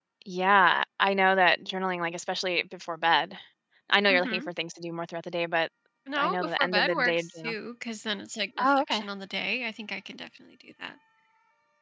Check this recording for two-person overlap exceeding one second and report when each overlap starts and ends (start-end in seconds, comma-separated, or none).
6.2-7.5